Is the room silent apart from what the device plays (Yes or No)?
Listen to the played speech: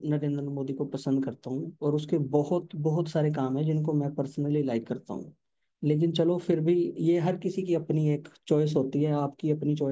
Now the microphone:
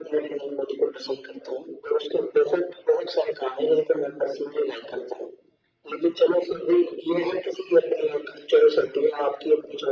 Yes